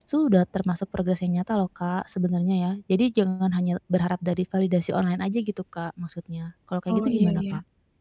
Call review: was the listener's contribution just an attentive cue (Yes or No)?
No